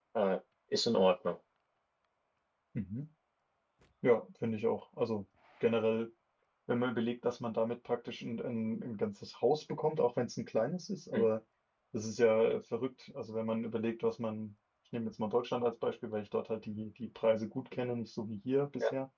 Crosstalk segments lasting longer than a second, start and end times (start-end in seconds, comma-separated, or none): none